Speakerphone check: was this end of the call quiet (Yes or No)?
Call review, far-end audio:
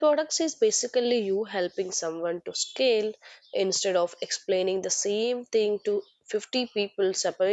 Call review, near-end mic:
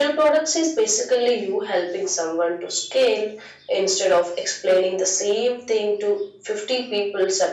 Yes